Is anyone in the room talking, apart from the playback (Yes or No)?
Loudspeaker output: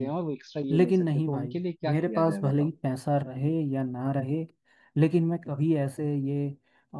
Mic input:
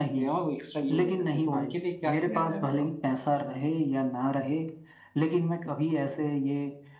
No